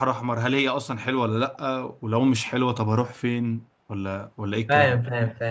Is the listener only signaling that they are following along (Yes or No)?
No